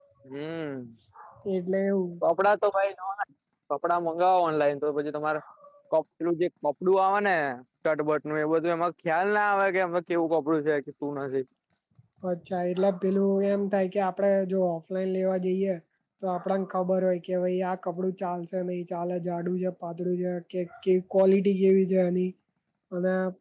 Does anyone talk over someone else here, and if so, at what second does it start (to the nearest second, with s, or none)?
none